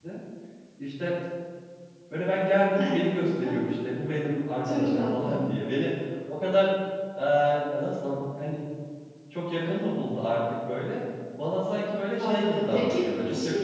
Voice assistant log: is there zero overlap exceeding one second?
No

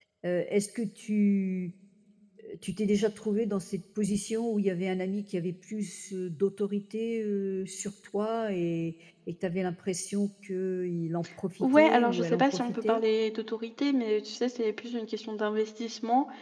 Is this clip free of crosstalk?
No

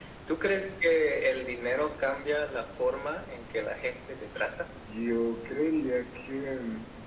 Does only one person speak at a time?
Yes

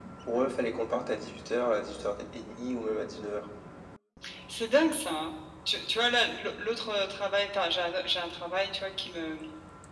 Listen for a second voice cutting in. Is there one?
No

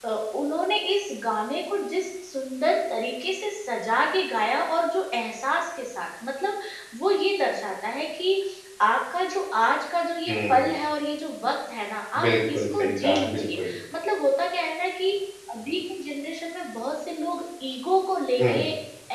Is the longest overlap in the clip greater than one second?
Yes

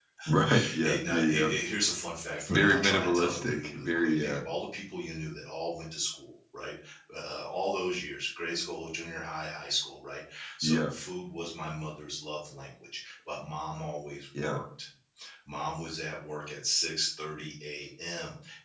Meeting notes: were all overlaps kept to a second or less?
No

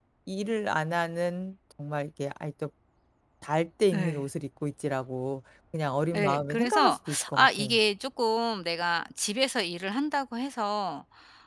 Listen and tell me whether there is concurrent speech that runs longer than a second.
Yes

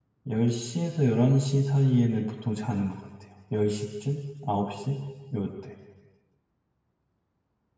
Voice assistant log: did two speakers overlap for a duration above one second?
No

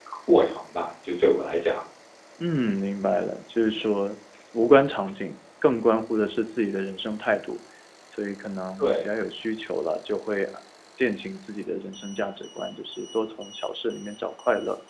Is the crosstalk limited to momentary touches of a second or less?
Yes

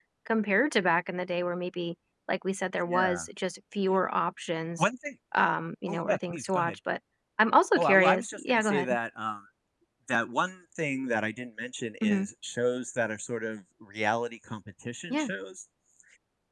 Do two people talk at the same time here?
Yes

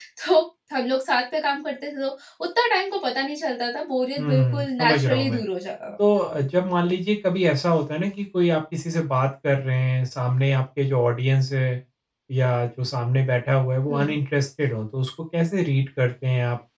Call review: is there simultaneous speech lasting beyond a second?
Yes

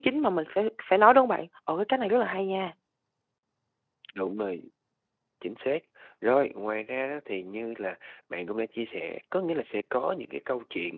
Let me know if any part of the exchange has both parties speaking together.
No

